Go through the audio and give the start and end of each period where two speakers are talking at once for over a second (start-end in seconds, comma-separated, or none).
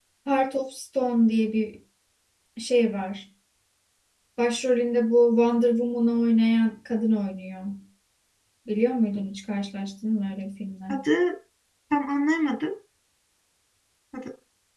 none